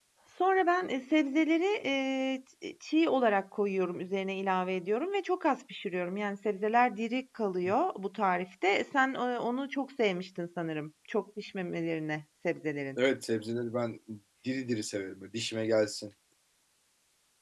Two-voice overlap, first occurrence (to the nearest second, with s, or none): none